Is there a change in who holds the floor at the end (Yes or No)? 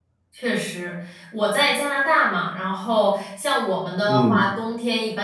No